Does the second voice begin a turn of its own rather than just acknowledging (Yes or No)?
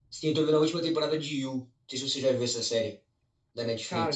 Yes